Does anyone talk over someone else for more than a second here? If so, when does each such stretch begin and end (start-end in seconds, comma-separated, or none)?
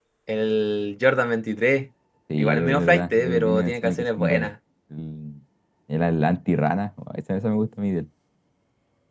2.4-4.5